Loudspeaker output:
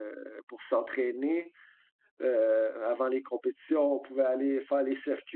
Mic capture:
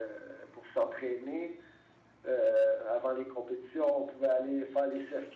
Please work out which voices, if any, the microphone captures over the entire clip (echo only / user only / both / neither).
echo only